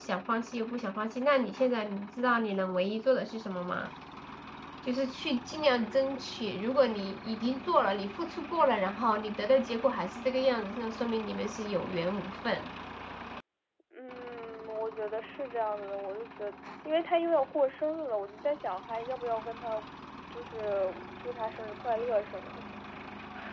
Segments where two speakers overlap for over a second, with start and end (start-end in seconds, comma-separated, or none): none